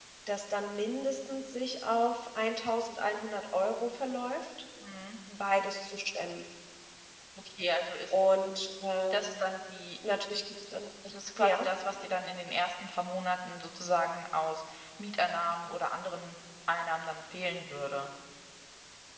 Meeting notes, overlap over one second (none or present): none